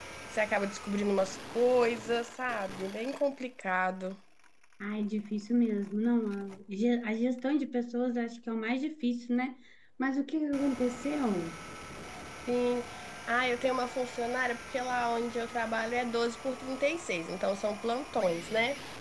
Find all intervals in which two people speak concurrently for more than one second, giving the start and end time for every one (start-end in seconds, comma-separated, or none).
none